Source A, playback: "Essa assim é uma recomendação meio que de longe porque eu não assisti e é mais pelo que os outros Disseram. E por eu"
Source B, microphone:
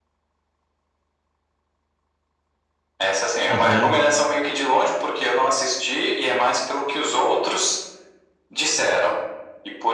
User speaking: Yes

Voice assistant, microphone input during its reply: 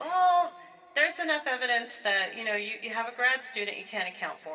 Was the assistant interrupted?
No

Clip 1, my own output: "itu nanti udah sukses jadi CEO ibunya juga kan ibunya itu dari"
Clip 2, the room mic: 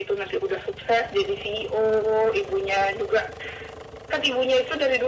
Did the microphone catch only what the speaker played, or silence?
Yes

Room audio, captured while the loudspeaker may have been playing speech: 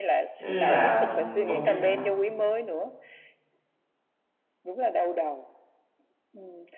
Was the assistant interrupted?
Yes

